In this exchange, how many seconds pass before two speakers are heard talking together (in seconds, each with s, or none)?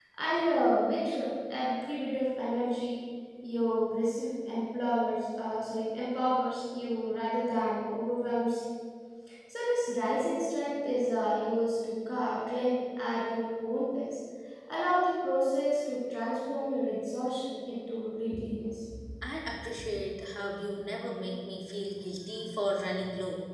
none